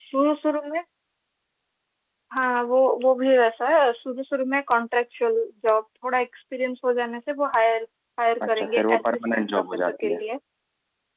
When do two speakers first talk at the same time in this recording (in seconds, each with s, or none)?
8.4 s